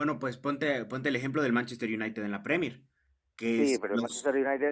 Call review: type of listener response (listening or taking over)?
taking over